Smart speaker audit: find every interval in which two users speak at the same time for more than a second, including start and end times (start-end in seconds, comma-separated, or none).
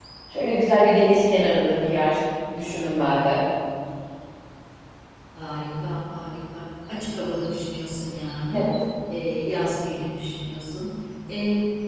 none